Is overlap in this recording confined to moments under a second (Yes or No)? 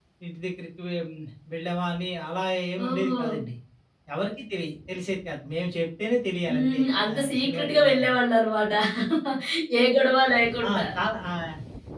No